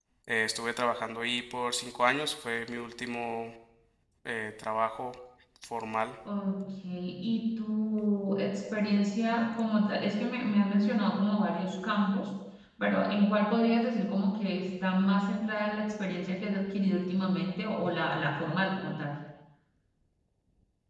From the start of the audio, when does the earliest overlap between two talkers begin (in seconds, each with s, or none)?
none